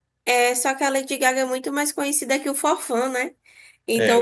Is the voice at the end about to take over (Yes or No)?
No